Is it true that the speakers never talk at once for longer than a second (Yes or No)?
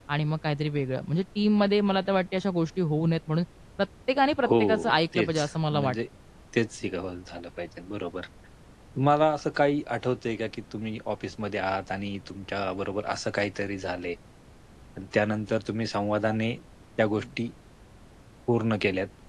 No